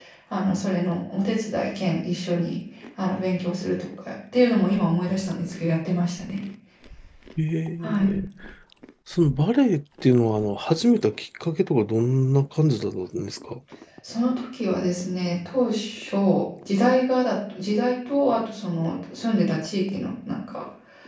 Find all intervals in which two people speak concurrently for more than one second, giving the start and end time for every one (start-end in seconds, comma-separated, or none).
none